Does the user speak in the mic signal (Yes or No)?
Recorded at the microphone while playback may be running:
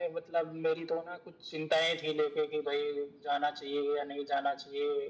No